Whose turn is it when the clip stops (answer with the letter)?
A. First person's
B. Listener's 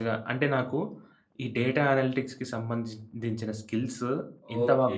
B